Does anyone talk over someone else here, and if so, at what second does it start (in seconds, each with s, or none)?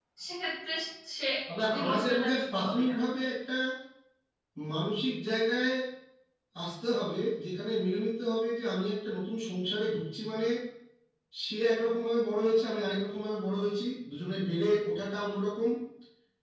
1.7 s